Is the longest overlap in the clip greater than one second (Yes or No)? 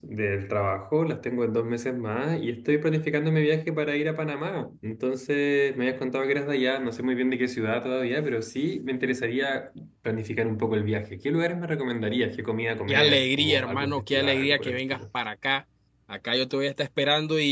Yes